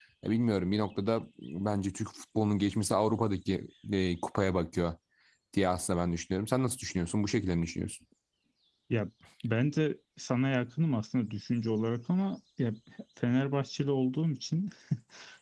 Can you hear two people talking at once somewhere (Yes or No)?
No